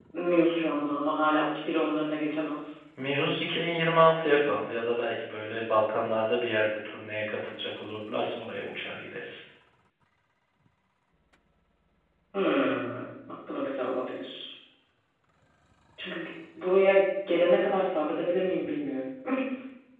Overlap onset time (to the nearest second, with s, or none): none